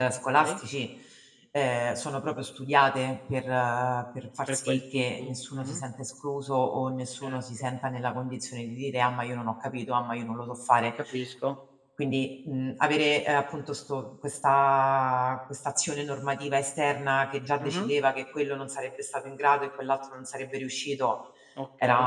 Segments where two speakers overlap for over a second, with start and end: 4.5-5.8

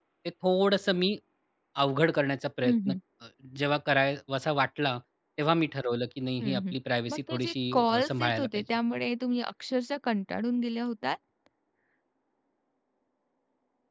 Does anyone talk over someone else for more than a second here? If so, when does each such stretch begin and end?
7.1-8.6

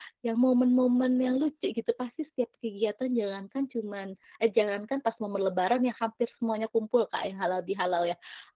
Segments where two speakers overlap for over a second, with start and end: none

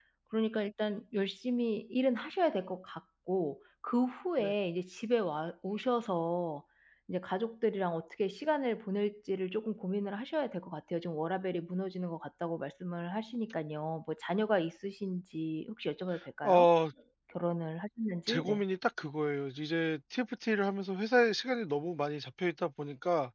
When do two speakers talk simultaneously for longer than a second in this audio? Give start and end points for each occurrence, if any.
none

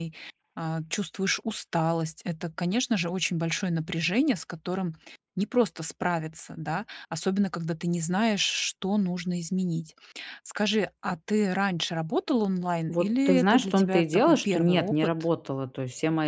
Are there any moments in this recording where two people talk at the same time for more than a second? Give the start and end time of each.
12.9-15.1

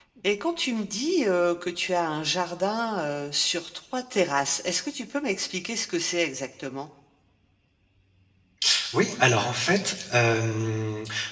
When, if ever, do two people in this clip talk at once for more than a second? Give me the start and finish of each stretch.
none

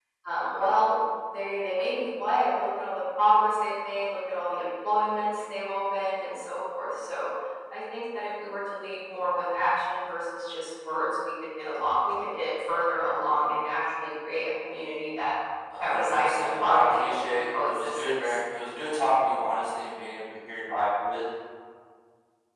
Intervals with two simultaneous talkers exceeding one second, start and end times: 15.8-18.4

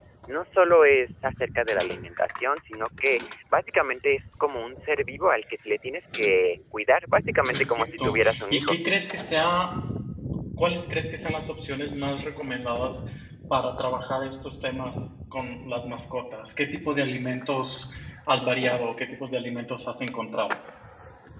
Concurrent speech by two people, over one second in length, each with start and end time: 7.5-8.8

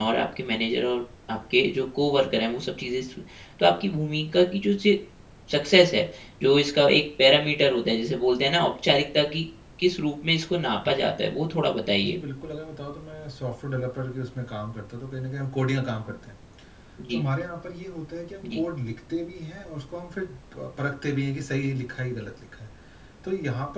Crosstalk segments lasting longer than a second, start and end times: none

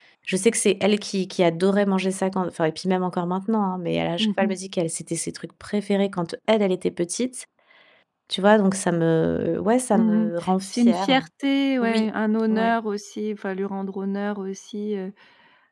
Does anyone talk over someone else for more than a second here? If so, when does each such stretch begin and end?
9.9-11.2

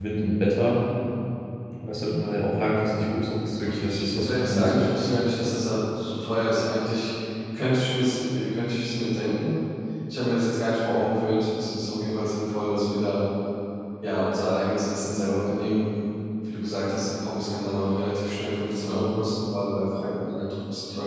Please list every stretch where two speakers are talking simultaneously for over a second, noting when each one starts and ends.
3.6-5.0

